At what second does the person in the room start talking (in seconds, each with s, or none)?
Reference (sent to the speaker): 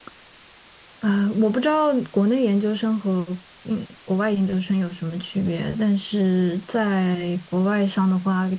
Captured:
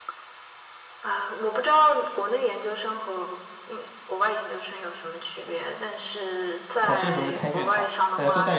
6.8 s